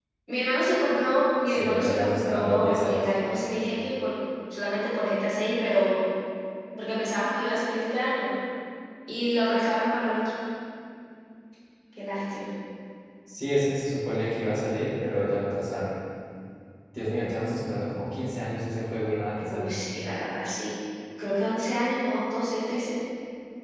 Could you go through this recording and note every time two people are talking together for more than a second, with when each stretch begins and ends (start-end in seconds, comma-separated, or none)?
1.5-3.1